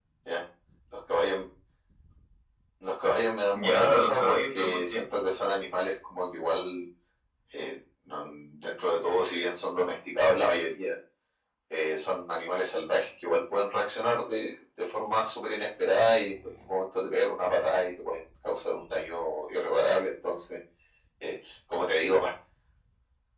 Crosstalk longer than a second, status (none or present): present